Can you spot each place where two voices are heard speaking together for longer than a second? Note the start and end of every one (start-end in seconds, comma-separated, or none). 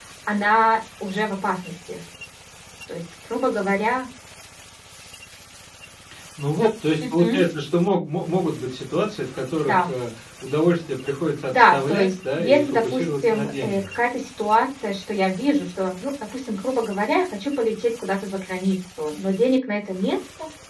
11.5-13.9